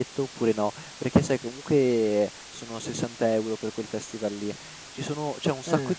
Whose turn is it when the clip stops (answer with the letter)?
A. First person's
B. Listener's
A